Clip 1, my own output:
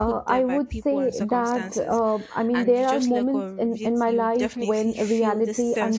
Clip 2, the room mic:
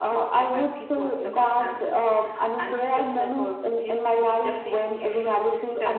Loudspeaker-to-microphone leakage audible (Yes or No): Yes